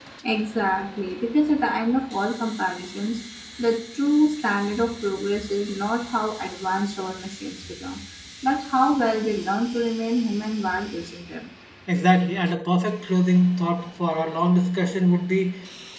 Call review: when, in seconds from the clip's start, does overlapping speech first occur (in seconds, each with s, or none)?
none